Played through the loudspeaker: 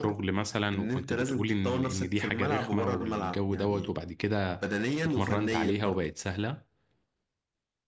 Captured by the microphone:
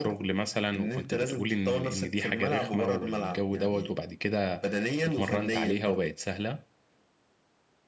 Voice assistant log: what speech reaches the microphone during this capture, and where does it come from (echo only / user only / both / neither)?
echo only